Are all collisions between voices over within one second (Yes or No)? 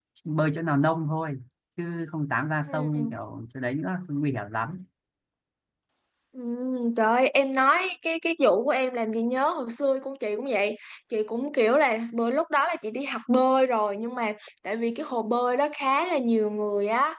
Yes